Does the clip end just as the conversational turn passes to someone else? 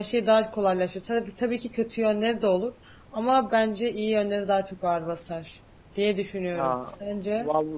Yes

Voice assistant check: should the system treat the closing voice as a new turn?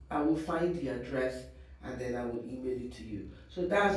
No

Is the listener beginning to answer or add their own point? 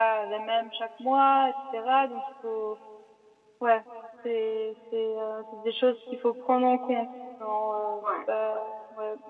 No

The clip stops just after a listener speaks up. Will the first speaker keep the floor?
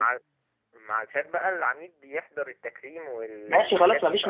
No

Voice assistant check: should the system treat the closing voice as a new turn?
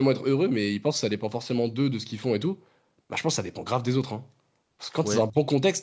No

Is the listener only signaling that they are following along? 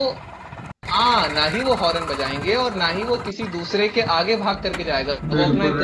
No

